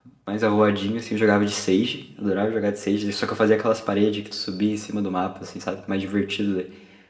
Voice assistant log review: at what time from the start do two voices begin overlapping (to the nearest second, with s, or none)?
none